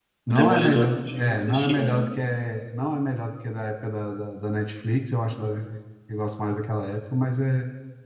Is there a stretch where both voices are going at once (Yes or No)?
Yes